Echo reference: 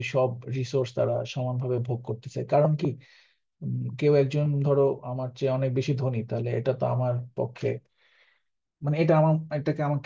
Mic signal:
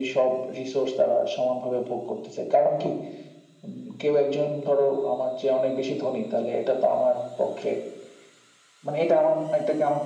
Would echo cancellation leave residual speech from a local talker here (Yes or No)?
No